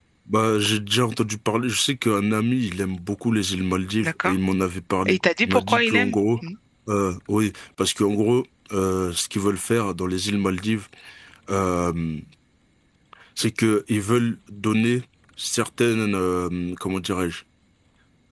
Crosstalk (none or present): present